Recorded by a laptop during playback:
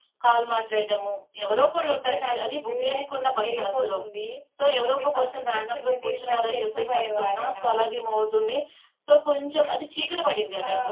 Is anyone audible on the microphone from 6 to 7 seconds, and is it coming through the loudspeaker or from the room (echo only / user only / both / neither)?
echo only